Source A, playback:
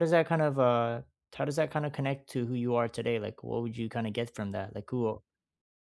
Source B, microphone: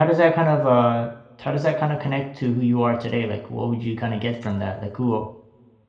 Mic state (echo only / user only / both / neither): echo only